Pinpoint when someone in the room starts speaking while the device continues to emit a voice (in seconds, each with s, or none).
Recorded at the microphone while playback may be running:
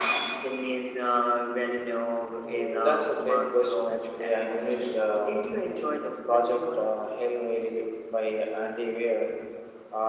none